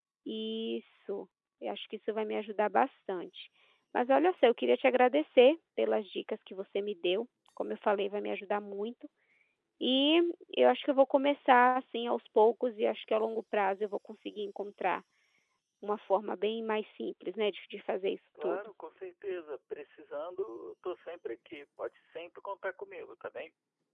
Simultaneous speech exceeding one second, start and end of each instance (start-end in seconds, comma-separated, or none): none